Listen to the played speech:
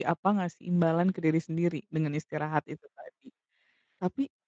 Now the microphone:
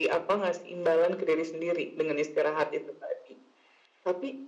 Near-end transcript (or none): none